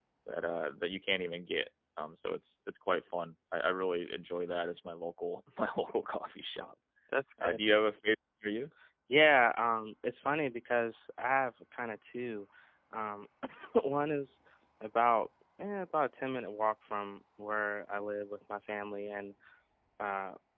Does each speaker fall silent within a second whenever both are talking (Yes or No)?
Yes